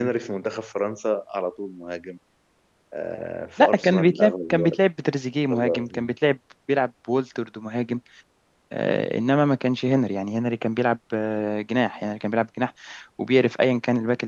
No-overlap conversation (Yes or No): No